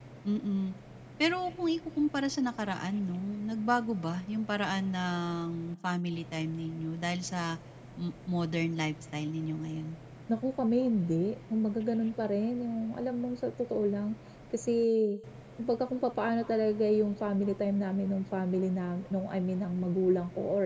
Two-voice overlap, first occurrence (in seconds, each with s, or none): none